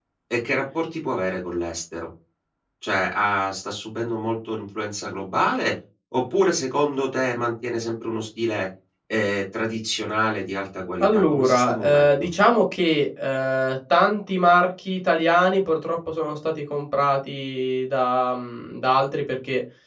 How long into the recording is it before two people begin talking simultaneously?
11.0 s

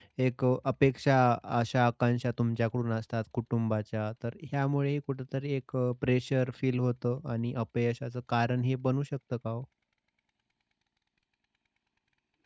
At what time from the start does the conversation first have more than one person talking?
none

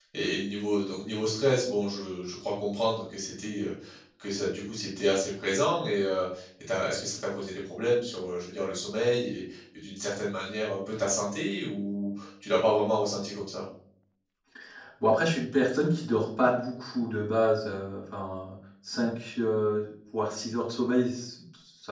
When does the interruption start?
none

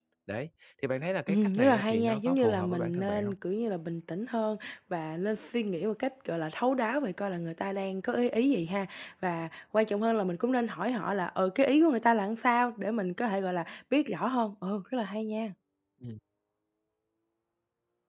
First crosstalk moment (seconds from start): 1.3 s

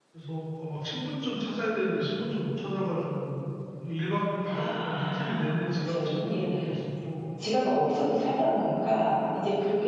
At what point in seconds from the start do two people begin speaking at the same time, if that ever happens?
4.5 s

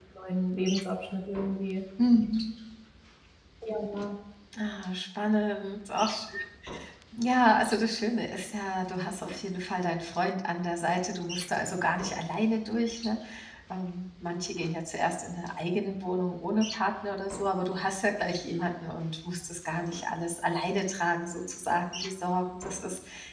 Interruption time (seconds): none

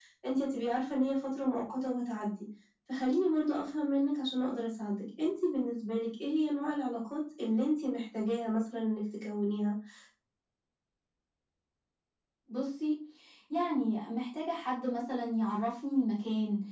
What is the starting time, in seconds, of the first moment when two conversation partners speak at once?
none

